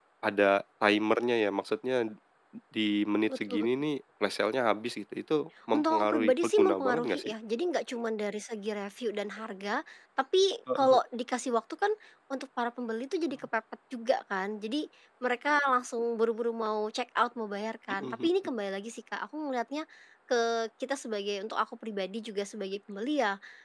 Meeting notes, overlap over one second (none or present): present